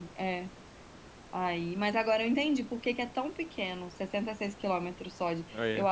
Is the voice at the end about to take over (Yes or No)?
No